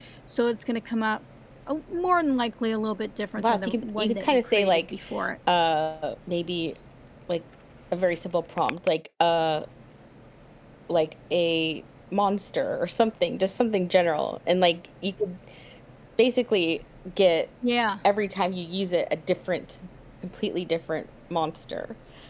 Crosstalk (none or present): present